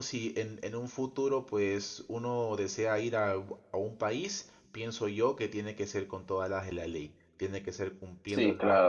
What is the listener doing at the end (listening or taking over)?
taking over